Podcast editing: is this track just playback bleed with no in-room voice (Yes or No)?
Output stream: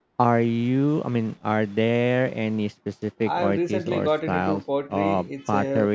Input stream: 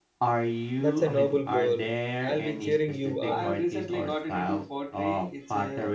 No